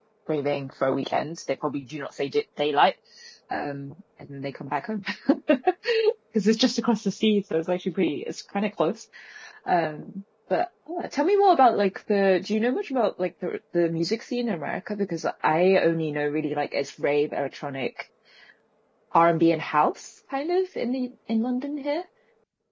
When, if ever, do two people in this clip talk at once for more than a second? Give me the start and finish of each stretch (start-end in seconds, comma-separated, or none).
none